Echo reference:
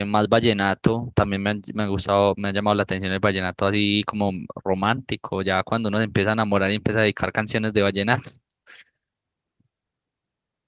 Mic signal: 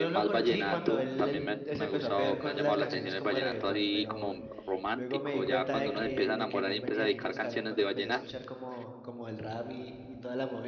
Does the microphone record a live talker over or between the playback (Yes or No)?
Yes